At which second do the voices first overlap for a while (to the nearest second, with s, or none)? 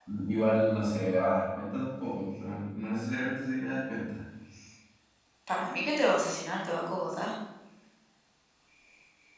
none